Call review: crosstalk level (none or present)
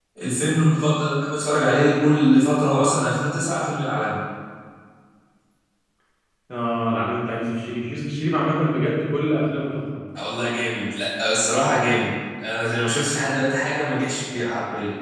none